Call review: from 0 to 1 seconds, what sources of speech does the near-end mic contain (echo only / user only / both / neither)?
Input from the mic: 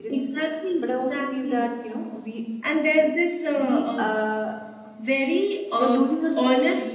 both